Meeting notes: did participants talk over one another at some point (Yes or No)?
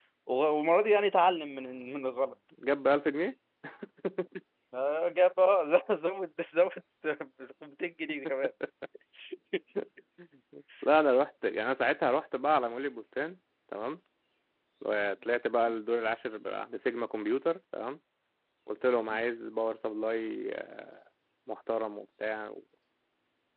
No